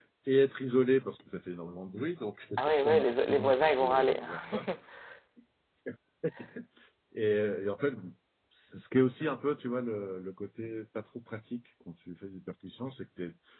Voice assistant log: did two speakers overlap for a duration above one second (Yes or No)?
Yes